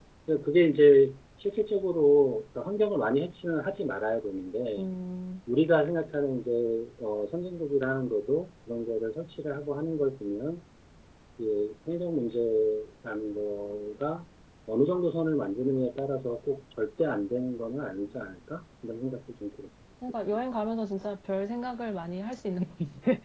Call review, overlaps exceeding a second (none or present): none